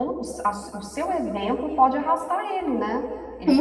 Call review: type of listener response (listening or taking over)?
taking over